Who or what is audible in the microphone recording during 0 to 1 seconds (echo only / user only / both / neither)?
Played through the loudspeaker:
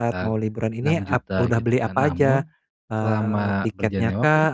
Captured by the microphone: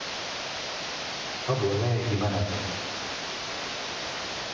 neither